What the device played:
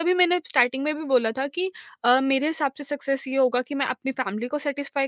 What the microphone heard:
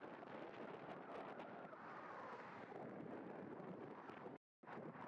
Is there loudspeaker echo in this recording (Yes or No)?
No